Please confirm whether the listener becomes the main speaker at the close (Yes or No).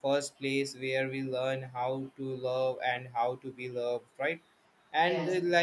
No